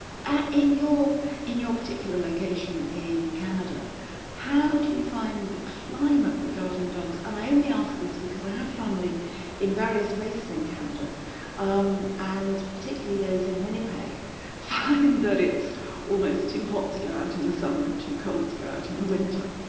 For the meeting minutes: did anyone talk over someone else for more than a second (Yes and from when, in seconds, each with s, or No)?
No